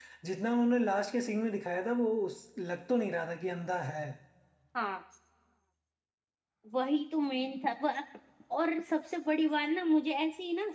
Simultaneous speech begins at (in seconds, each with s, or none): none